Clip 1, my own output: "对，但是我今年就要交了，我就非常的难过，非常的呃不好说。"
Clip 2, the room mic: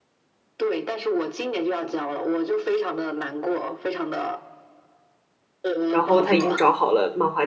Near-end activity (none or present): present